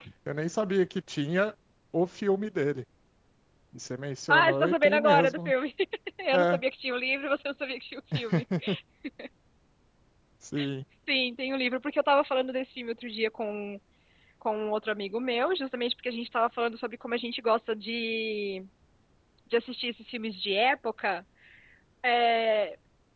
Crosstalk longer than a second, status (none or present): present